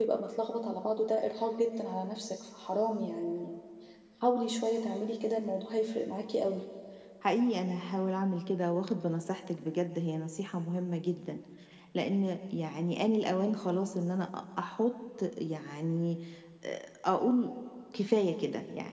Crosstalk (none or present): none